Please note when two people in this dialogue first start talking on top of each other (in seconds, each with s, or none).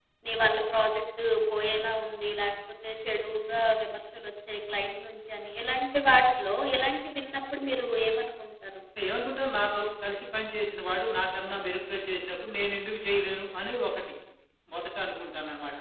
none